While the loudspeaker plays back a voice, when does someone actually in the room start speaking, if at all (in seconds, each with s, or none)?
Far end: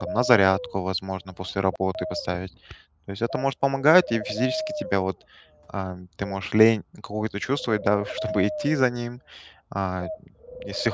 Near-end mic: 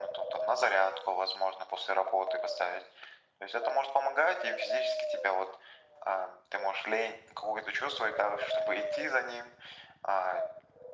none